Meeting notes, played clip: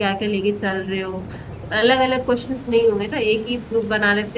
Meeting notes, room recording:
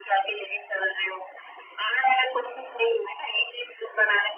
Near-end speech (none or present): none